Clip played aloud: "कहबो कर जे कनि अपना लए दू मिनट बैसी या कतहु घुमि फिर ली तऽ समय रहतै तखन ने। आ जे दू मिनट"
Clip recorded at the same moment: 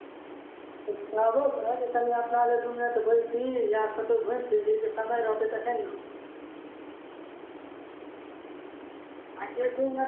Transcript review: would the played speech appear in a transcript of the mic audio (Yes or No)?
Yes